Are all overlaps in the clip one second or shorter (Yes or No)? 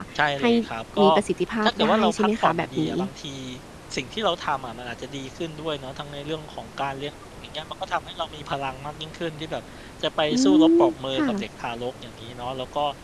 No